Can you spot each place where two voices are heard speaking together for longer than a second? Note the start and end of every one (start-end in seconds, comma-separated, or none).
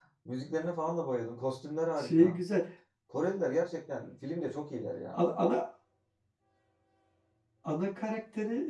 none